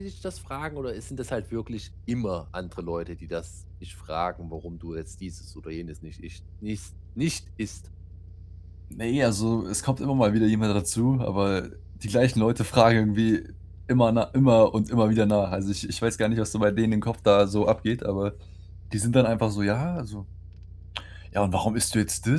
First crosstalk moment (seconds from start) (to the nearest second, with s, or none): none